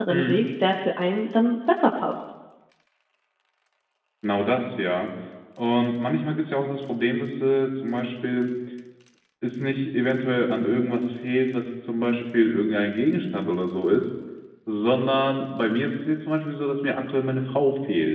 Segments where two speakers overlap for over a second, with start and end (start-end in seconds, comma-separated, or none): none